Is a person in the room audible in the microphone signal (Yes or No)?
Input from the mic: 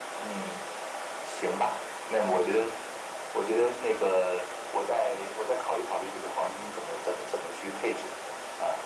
No